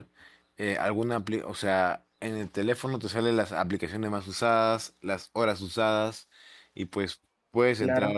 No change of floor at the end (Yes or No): Yes